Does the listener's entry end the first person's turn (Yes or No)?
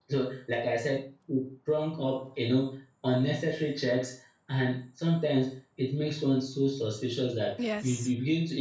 No